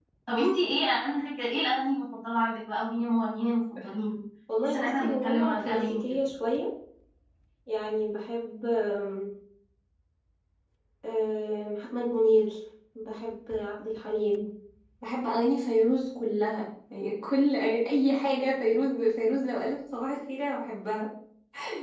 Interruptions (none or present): present